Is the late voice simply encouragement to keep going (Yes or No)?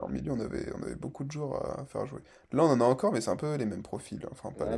No